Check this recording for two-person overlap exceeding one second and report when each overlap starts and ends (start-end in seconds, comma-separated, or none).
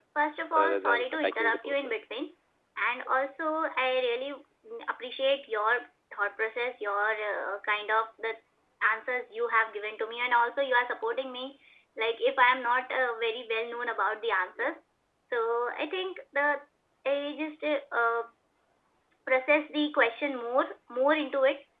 0.6-1.9